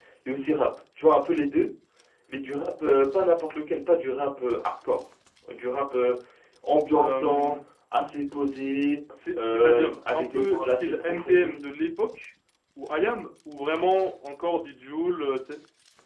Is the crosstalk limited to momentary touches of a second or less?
No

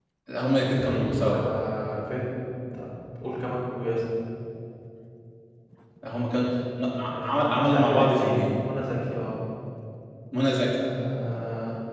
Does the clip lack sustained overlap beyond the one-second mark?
No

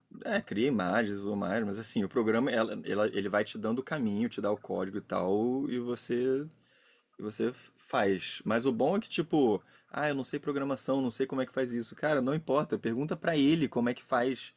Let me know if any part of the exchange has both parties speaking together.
No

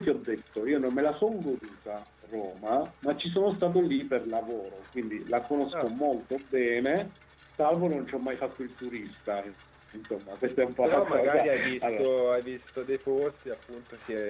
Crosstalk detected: Yes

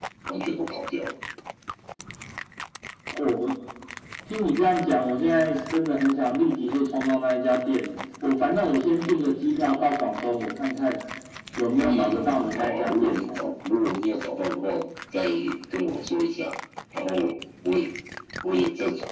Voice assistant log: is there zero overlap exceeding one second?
No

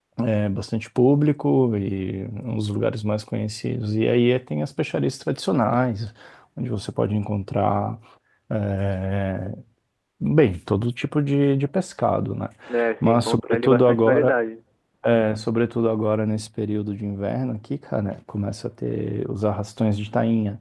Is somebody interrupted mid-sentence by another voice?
Yes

